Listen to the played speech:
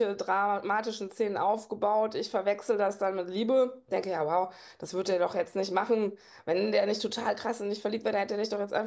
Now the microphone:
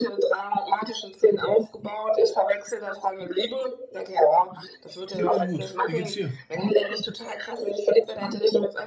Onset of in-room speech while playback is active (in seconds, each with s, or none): 5.2 s